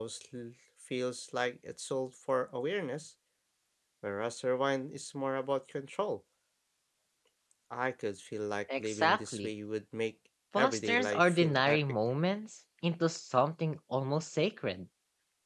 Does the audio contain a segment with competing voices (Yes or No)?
Yes